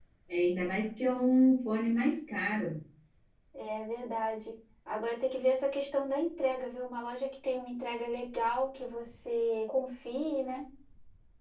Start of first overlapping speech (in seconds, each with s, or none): none